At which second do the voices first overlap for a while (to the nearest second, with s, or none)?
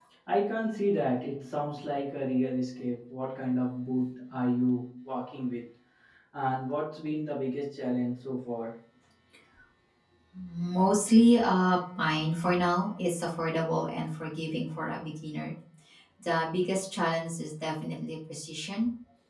none